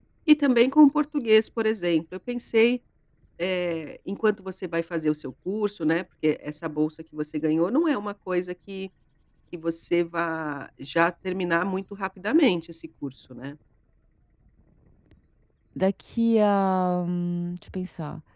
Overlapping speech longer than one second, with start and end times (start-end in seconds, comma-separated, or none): none